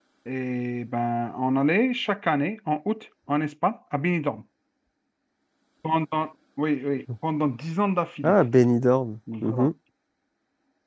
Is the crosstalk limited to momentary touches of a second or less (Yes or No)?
Yes